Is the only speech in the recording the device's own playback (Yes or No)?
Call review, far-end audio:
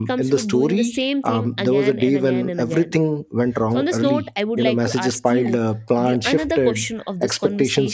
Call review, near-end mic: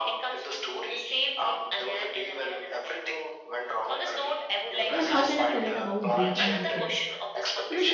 No